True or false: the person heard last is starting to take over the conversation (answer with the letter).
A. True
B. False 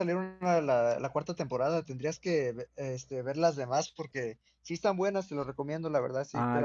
B